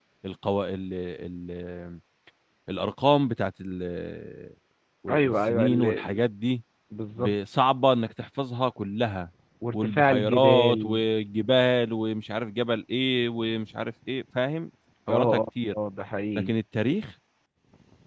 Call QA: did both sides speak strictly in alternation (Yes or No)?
No